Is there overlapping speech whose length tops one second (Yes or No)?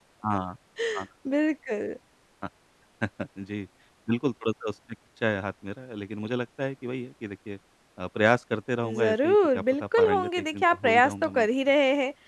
Yes